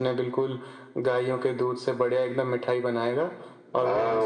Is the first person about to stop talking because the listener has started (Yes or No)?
Yes